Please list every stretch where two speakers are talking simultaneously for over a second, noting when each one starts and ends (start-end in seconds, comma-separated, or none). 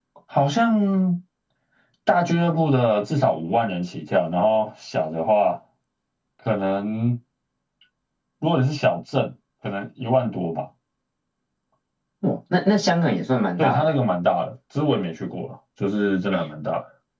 none